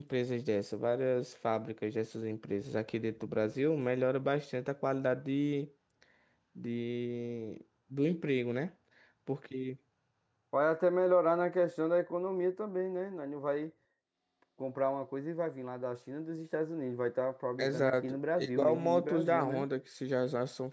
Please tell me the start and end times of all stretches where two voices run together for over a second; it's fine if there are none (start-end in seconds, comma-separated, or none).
17.6-19.6